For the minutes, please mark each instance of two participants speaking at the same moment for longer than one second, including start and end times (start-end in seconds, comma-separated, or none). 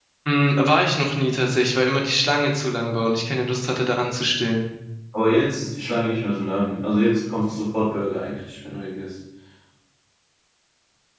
none